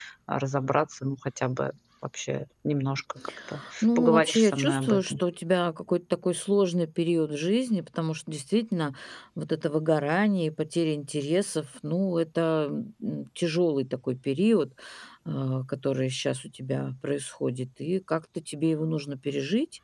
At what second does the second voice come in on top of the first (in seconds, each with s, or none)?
3.6 s